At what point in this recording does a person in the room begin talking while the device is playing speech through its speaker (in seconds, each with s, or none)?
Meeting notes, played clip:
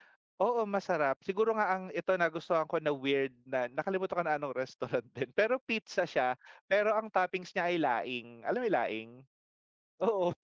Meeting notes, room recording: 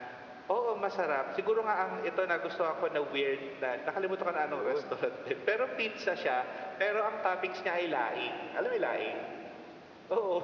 4.5 s